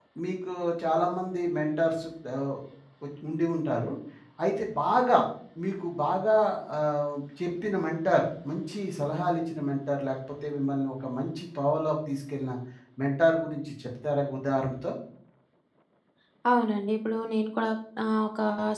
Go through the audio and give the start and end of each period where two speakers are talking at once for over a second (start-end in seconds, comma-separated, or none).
none